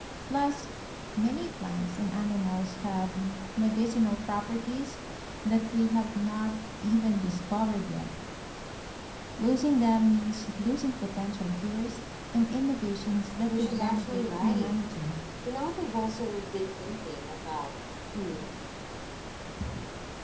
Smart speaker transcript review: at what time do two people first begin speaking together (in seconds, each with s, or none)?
13.5 s